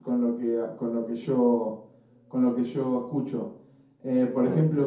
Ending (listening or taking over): listening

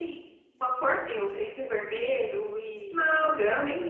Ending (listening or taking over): taking over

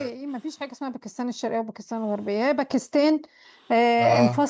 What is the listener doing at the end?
listening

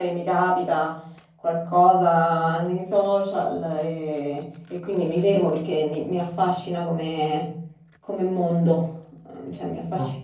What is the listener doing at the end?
listening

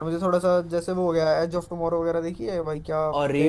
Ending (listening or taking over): taking over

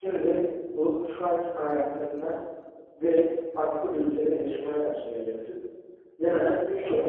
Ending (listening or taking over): listening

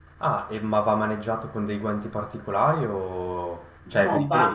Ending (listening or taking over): taking over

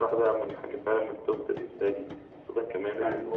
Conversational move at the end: listening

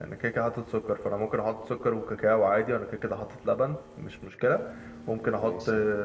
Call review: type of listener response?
listening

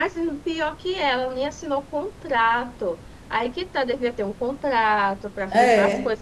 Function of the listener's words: listening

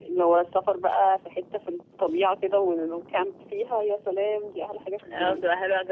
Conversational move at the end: taking over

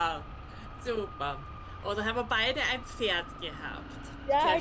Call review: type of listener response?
taking over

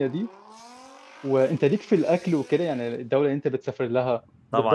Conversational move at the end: taking over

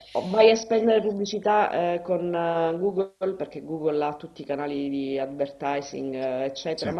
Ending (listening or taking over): listening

